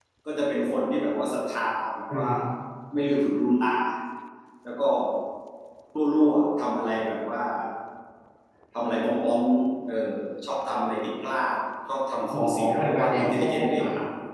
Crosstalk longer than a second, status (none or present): present